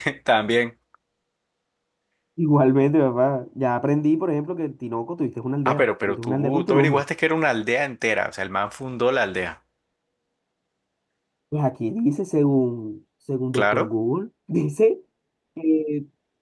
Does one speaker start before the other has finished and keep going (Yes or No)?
Yes